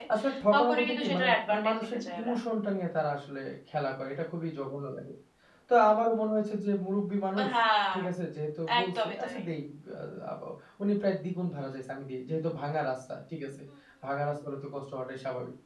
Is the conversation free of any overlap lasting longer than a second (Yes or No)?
No